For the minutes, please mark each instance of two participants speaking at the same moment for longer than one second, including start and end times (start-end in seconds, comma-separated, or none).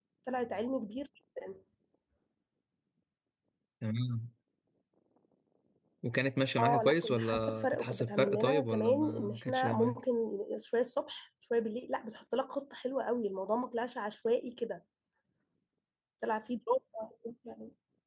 6.6-10.0